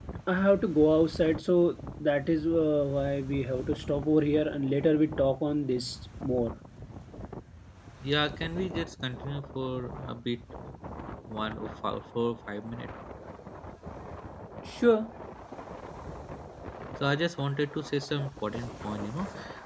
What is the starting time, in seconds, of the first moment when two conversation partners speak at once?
none

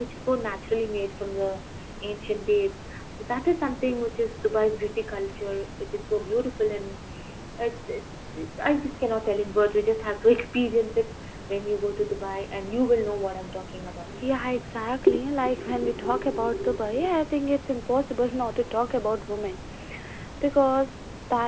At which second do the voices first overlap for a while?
none

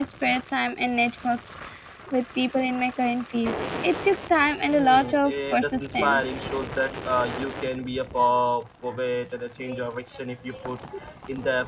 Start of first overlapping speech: 4.7 s

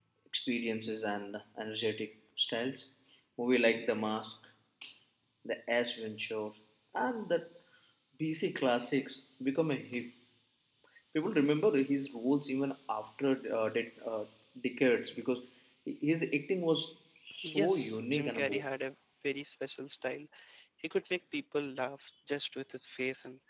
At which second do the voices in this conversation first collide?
17.4 s

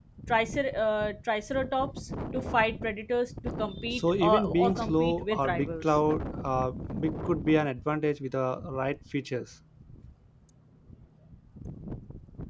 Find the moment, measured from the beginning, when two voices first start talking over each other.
3.9 s

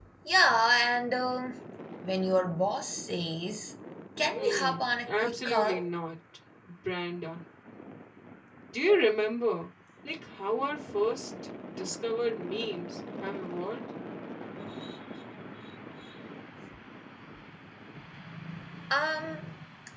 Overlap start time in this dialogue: 4.4 s

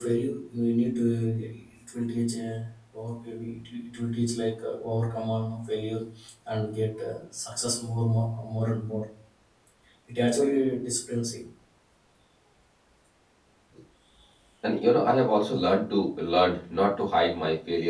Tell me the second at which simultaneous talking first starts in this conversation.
none

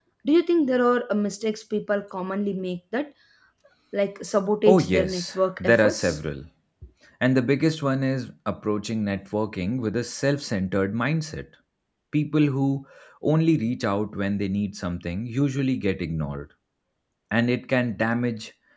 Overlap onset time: 4.7 s

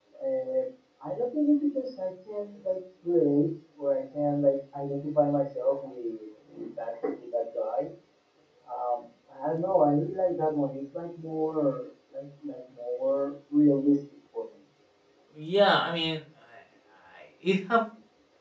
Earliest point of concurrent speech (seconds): none

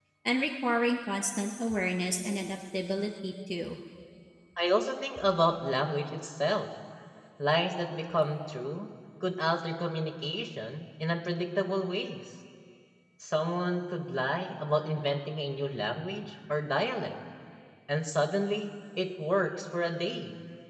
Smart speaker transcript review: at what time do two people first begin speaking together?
none

